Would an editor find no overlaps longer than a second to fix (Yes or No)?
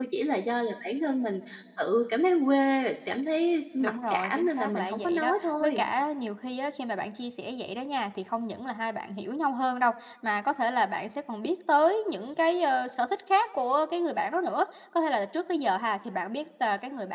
No